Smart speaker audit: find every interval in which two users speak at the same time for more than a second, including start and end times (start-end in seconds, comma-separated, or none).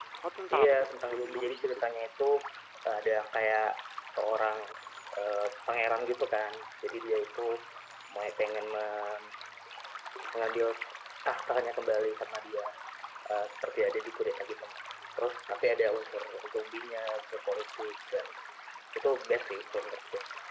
0.5-1.8